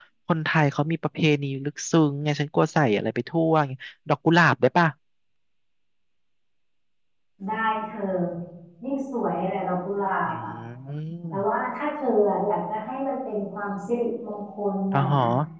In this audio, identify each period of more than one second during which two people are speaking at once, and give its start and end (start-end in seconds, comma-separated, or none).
none